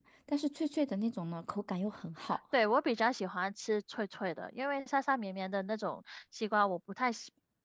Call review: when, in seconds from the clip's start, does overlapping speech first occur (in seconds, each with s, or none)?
none